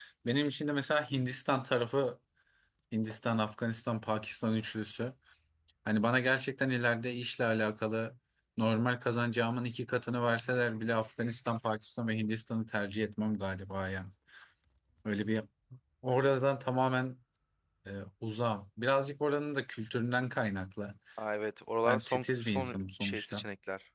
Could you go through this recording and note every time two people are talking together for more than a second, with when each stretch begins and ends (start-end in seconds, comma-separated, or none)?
21.9-23.4